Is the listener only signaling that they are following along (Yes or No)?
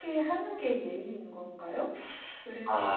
No